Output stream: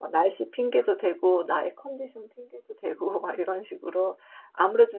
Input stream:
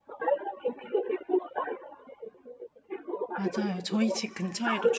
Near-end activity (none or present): present